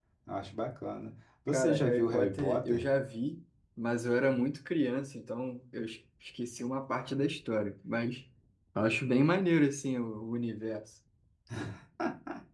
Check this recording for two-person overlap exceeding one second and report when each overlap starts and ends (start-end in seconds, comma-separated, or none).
1.5-2.9